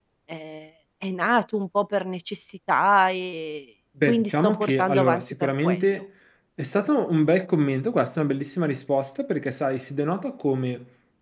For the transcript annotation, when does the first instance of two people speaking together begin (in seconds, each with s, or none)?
4.0 s